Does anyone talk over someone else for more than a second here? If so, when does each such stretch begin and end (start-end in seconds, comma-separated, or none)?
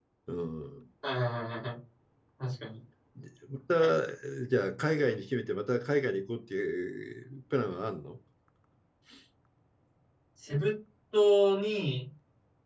none